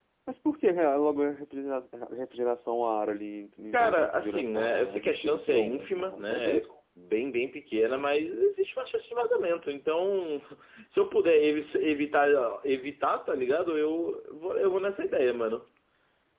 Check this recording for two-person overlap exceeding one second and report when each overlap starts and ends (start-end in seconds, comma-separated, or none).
3.7-6.7